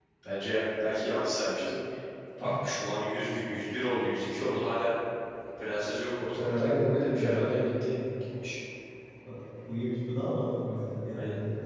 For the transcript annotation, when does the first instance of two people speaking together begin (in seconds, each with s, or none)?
6.4 s